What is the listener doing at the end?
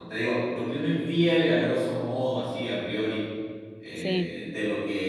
listening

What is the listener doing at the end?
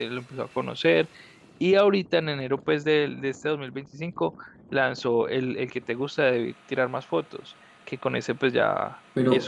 taking over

